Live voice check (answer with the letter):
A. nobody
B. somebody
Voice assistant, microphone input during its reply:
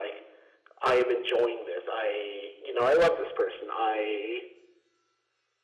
A